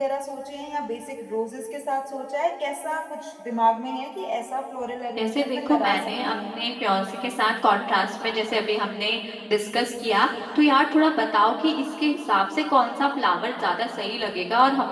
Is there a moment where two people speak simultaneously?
Yes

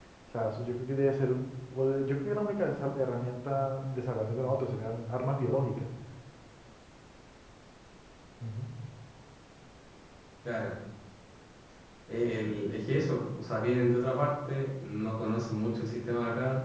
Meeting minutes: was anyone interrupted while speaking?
No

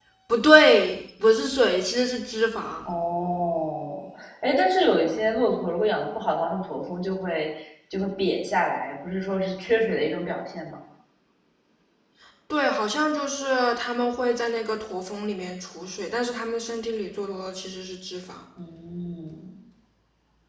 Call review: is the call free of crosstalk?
Yes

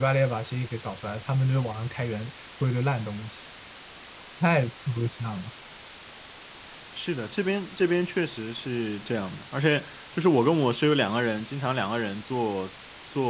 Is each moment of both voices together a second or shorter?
Yes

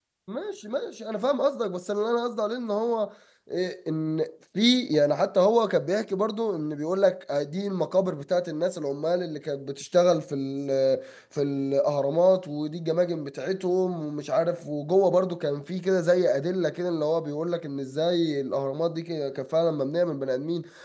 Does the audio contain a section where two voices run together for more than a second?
No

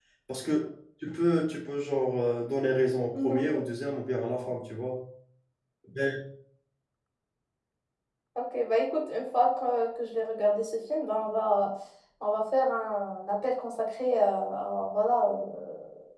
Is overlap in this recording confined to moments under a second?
Yes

